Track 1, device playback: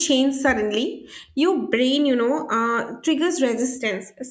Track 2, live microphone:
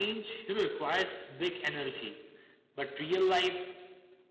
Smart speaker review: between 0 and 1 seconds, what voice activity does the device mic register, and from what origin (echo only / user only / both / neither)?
user only